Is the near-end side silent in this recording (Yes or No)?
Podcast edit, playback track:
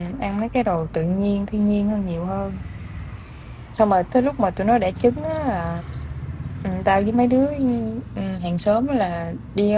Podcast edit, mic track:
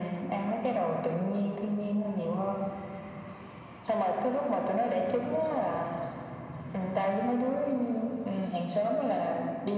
Yes